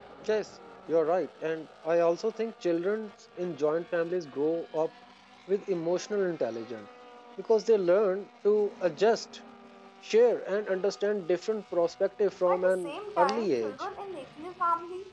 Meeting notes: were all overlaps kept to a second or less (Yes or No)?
No